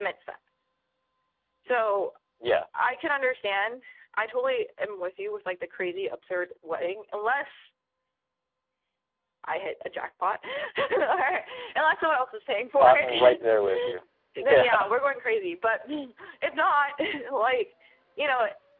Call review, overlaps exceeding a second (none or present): present